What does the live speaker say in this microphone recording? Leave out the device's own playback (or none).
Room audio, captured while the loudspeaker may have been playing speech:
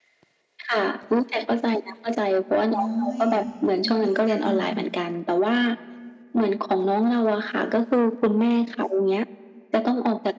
โอ้ย เอ็นดูจัง